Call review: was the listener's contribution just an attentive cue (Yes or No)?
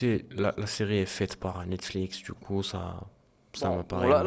No